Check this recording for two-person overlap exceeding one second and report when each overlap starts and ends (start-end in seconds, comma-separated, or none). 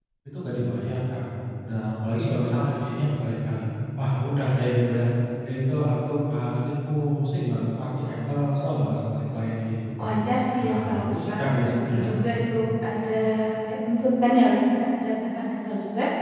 10.6-12.2